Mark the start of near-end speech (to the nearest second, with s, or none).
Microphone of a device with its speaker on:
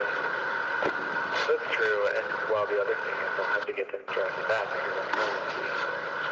none